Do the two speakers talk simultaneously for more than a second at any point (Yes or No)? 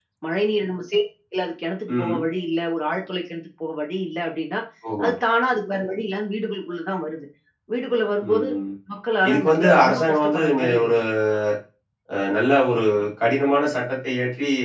Yes